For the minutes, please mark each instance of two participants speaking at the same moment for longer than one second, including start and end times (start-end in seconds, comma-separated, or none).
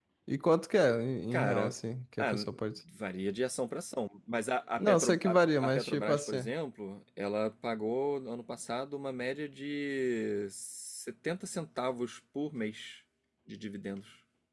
4.8-6.5